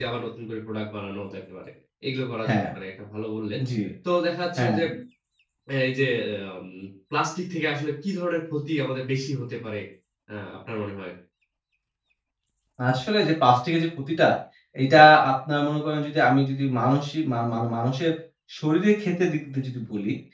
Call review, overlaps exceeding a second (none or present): none